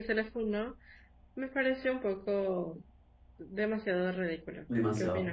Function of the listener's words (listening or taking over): taking over